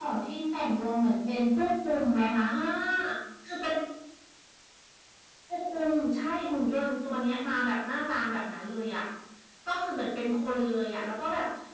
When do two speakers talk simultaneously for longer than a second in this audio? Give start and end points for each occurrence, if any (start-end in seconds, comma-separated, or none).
none